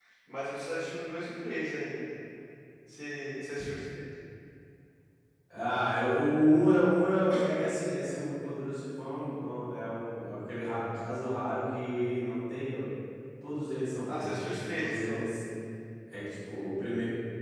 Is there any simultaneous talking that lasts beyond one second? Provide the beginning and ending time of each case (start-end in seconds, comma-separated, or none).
14.1-15.3